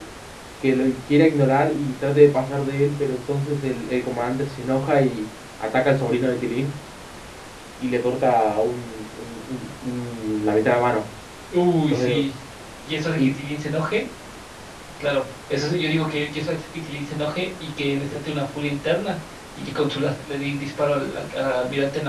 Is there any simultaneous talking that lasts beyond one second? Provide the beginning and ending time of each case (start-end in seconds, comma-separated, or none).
none